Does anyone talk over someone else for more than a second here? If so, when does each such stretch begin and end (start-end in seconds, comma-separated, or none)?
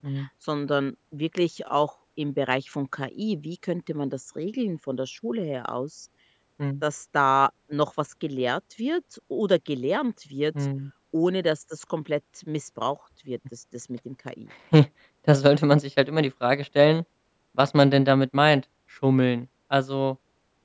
none